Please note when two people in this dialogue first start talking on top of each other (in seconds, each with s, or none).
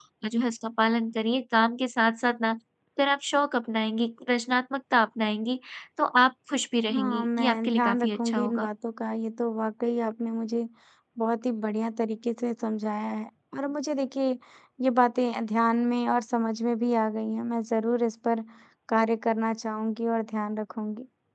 6.9 s